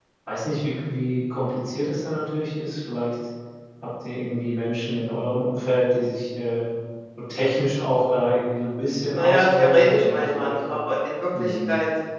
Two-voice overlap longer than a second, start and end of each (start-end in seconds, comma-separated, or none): 9.1-10.6